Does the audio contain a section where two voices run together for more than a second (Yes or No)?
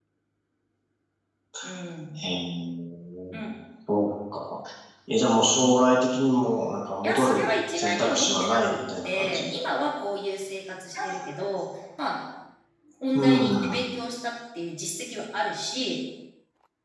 Yes